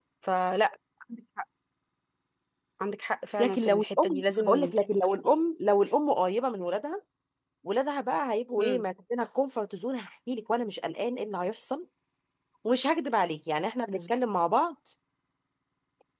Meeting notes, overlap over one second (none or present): present